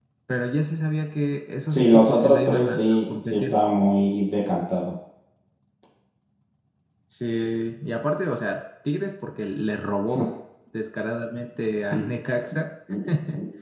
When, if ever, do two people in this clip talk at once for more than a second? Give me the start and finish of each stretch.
1.7-3.6

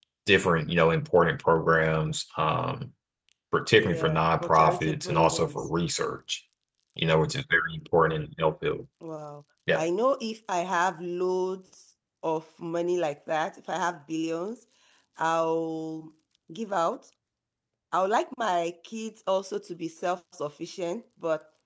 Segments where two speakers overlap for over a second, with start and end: 3.8-5.7

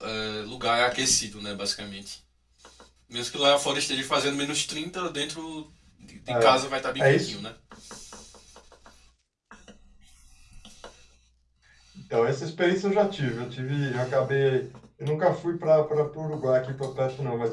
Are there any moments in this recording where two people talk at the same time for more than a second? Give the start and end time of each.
none

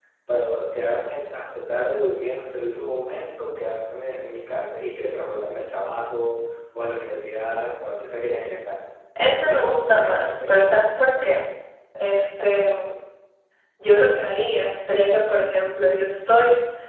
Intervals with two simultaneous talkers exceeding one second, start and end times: 9.2-10.8

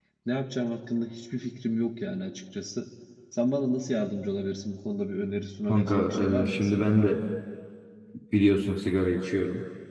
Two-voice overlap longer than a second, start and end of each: 5.7-6.9

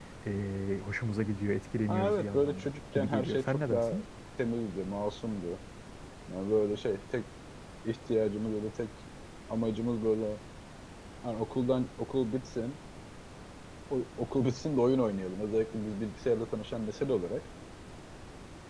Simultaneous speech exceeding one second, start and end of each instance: 1.9-4.0

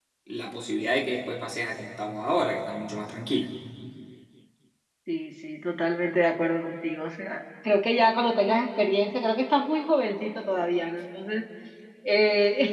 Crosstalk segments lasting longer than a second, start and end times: none

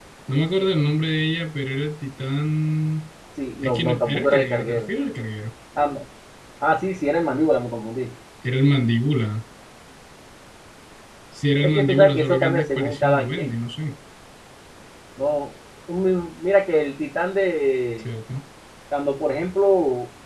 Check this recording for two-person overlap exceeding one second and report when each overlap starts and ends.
3.6-4.9, 11.6-13.6

